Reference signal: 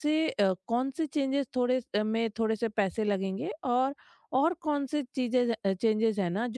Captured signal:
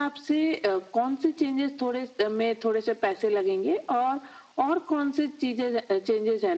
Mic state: echo only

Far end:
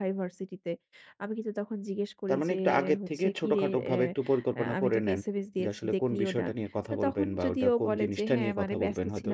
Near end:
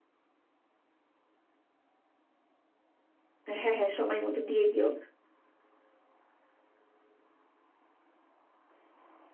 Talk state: user only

